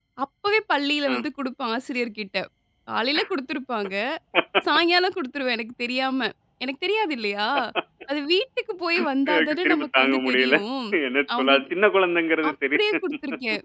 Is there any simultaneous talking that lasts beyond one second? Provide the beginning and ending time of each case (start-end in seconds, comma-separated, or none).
9.3-10.6